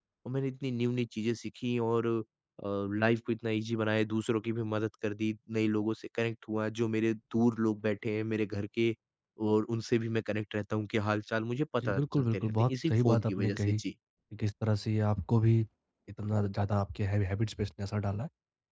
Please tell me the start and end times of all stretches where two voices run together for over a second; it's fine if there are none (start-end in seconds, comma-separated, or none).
11.8-13.8